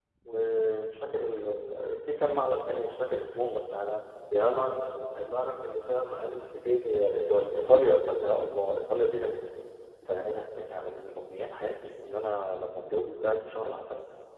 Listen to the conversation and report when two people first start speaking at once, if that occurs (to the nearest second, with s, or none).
none